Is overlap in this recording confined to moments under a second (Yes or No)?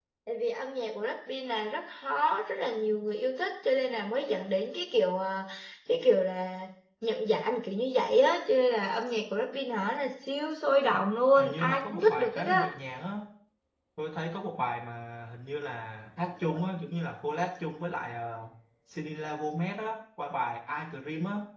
No